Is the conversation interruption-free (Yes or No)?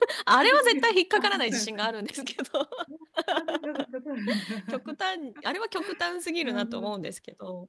No